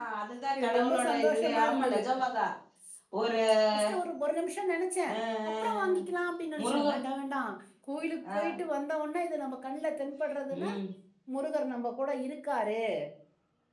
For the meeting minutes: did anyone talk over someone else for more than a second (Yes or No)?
Yes